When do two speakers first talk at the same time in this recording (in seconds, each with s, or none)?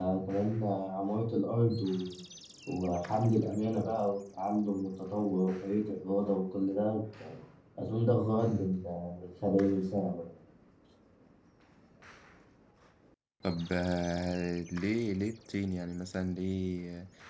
none